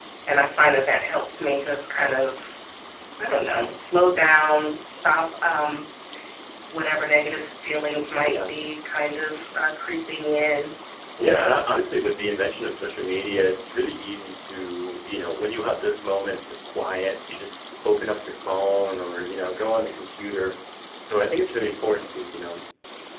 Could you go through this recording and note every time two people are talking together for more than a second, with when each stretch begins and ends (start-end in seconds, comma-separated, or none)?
none